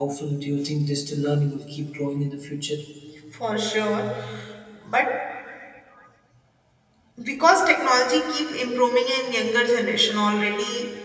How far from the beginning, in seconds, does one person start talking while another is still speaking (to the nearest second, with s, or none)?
none